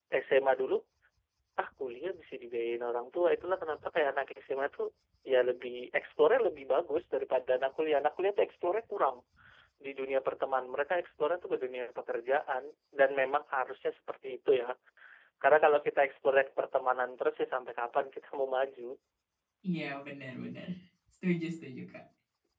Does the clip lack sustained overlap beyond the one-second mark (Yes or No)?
Yes